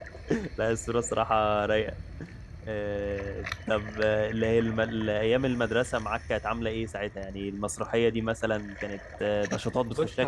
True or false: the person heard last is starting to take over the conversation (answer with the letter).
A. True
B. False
A